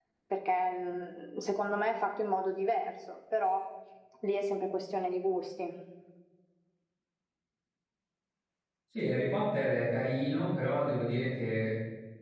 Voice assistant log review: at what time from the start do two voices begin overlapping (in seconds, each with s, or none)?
none